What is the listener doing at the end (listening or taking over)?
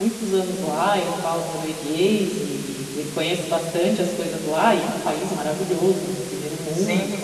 taking over